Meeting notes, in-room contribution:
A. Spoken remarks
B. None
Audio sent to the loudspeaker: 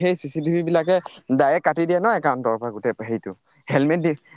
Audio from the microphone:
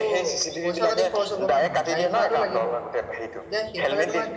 A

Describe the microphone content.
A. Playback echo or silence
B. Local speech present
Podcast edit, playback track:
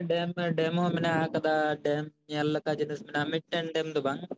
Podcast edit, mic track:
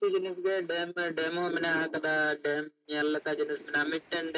A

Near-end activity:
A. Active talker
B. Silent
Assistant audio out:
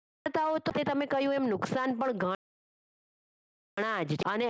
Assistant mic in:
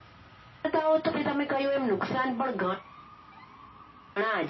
B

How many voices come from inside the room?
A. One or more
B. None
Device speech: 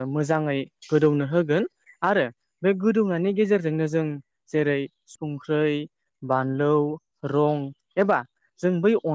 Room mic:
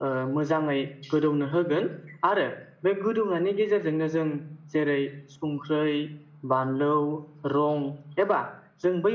B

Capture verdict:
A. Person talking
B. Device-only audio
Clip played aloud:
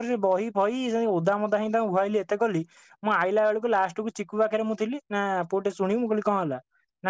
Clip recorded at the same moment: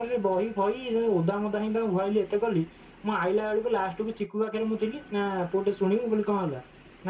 B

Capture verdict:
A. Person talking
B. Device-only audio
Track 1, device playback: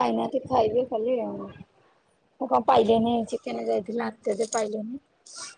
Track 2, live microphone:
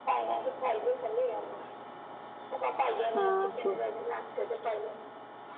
A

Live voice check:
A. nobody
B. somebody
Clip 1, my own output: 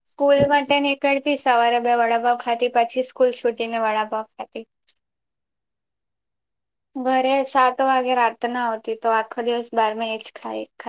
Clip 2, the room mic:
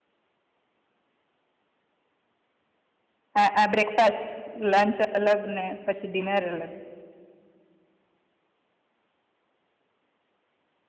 B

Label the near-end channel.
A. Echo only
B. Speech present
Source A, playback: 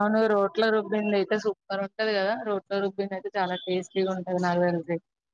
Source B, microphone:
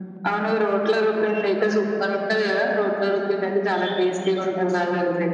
A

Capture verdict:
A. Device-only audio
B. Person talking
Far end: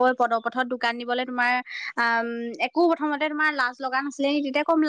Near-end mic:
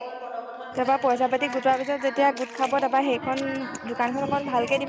B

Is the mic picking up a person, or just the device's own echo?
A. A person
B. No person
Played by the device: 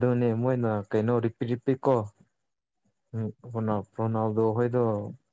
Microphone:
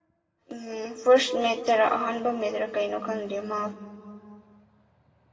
A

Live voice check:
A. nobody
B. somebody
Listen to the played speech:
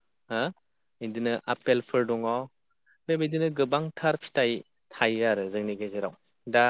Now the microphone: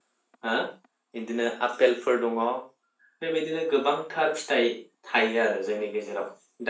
A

